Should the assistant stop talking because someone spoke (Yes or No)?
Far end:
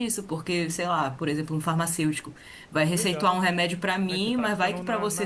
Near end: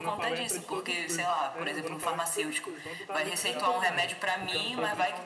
Yes